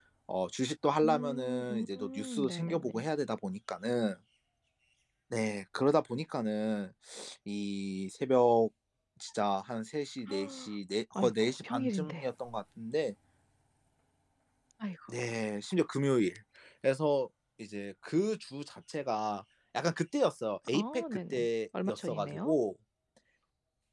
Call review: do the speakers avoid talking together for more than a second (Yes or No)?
No